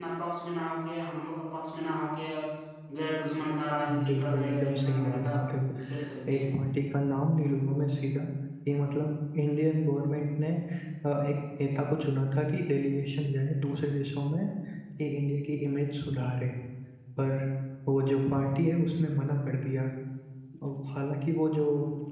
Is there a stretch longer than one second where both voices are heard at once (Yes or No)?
Yes